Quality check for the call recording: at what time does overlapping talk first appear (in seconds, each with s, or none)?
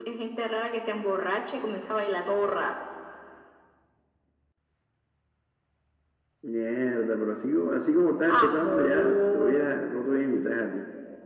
8.3 s